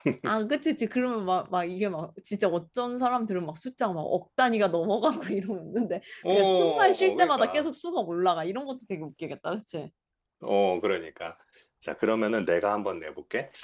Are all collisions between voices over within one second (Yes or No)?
No